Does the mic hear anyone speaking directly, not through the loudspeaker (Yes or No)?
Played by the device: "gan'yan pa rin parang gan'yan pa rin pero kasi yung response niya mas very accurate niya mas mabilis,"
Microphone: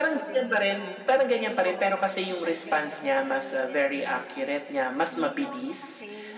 Yes